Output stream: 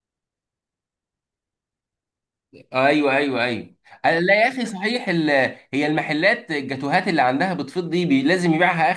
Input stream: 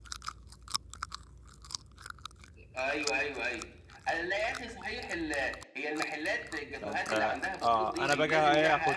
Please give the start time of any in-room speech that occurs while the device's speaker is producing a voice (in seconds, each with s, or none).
6.8 s